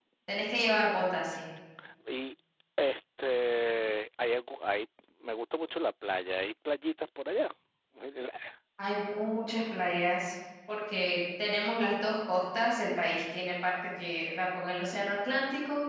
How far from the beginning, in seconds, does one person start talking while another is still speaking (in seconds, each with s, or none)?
none